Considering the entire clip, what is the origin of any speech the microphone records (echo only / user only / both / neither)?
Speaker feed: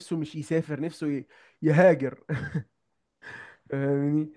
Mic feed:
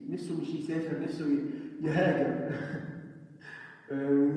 echo only